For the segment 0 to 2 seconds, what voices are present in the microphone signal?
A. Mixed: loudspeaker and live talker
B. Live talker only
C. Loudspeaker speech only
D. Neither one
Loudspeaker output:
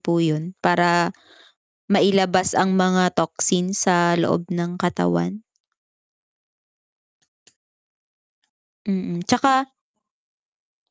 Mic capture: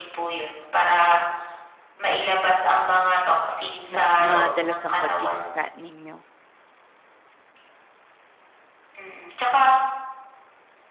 C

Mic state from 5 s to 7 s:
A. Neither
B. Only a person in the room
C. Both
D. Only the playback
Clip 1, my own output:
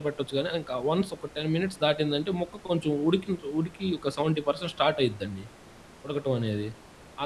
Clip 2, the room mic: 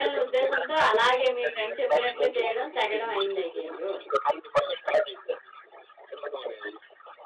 D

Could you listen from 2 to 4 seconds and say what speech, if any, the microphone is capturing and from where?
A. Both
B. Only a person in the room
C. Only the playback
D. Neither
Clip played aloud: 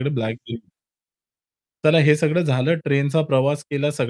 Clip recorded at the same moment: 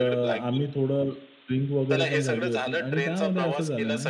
A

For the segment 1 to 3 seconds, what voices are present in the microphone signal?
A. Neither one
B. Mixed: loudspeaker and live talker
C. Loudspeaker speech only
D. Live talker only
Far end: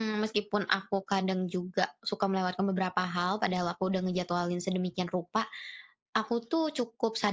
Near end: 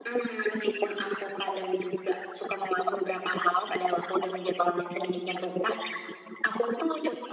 C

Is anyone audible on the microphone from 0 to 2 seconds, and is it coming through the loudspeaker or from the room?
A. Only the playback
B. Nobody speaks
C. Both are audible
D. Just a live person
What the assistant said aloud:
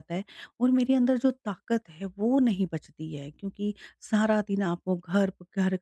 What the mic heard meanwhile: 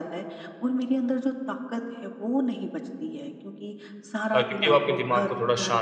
A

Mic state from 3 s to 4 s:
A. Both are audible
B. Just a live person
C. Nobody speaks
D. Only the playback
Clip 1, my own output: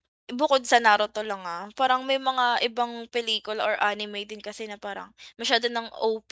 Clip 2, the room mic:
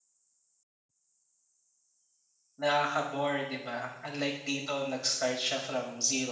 B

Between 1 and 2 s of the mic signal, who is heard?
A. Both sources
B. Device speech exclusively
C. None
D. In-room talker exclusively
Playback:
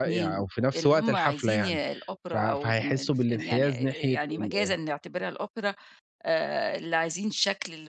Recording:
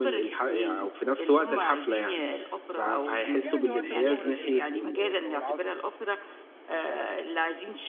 B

